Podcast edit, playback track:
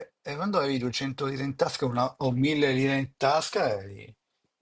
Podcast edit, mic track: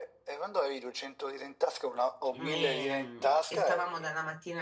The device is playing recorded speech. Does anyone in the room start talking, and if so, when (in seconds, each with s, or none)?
2.3 s